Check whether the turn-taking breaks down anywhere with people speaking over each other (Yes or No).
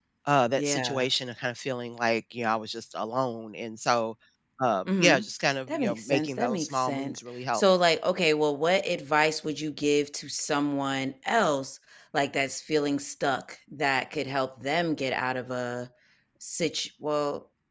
Yes